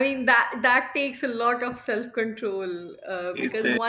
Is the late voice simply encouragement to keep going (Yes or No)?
Yes